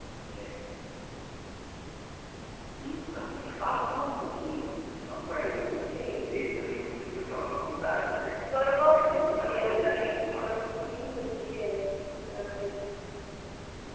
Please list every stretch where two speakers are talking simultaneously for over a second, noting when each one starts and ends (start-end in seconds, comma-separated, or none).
8.9-10.5